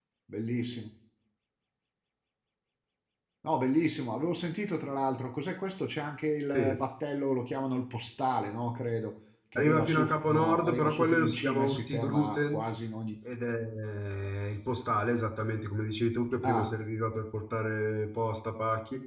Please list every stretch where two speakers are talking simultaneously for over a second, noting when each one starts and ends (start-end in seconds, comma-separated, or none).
9.6-12.6